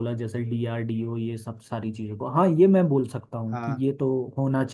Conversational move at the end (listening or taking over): listening